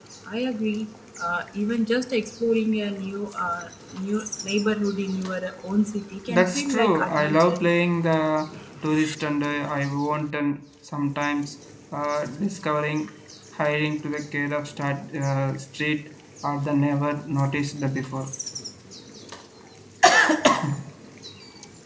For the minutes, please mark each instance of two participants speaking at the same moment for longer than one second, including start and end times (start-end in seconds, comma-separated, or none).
6.3-7.6